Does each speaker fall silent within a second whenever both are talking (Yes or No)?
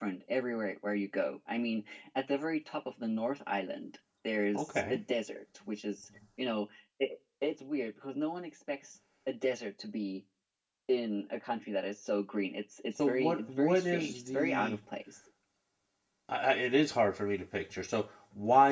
No